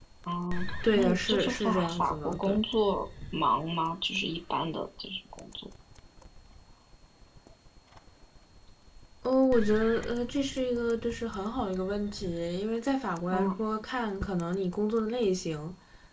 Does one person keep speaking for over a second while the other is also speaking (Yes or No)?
Yes